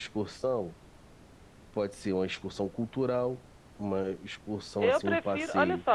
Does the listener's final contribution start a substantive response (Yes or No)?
Yes